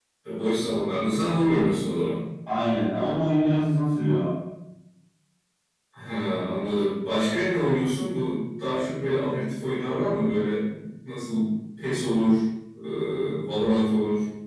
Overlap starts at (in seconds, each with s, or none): none